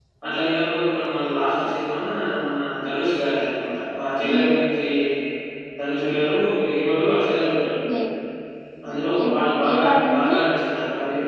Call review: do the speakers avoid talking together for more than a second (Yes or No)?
No